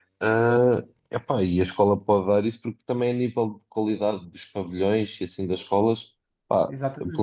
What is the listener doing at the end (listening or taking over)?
listening